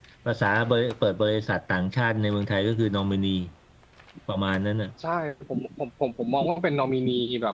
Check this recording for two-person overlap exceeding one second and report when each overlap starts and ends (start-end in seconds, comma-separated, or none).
none